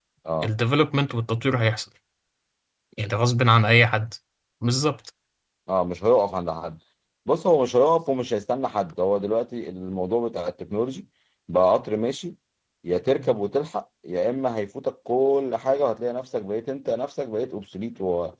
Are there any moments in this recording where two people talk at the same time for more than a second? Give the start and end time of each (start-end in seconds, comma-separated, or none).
none